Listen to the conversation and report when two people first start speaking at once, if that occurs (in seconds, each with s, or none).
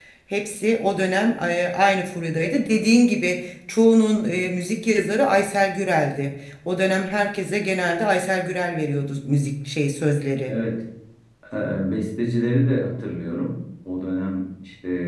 none